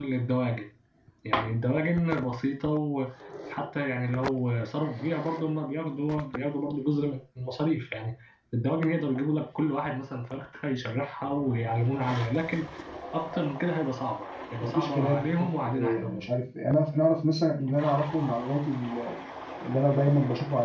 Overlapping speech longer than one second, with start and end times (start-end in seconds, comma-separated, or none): 14.6-16.3